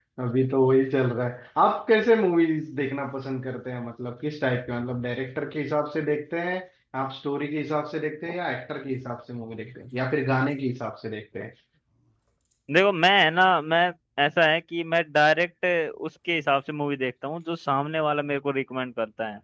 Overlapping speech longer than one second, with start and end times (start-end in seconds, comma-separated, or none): none